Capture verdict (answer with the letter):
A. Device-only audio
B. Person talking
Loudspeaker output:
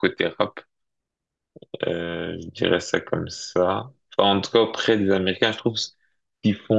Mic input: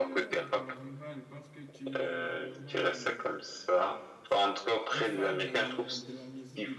B